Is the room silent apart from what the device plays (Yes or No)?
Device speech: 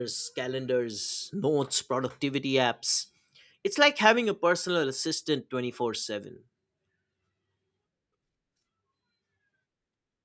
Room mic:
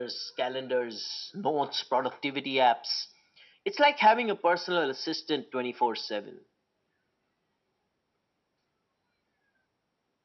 Yes